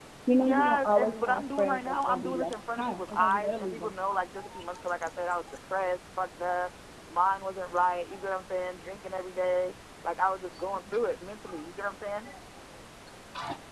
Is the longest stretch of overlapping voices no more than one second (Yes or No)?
No